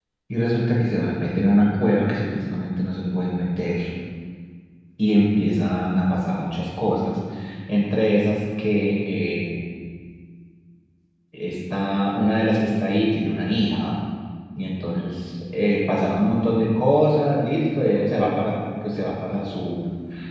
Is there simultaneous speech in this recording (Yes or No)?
No